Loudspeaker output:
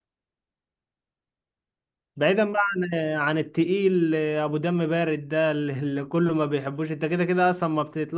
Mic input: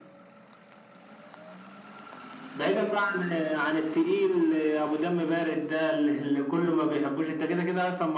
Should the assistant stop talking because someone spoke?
No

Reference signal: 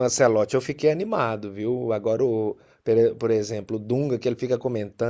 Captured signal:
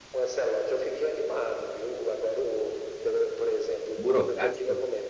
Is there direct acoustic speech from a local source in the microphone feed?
Yes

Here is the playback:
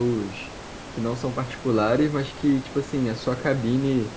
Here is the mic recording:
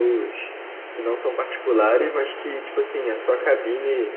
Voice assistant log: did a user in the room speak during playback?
No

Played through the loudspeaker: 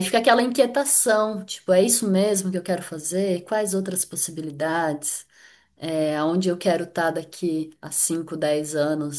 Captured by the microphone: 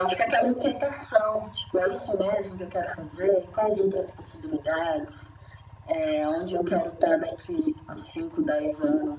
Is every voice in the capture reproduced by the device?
Yes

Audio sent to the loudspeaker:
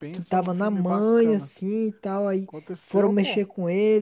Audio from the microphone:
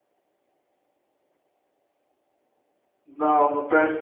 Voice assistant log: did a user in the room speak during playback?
Yes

